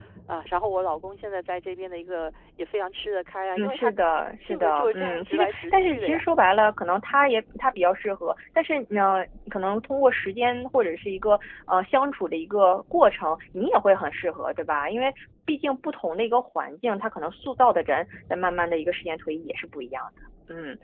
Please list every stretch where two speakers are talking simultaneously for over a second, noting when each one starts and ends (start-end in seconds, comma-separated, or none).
4.5-6.2